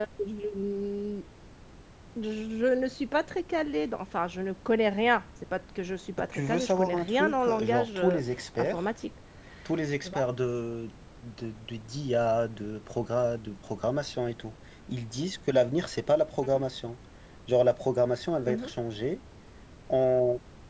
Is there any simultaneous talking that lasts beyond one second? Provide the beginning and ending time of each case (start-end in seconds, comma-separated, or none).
6.3-8.2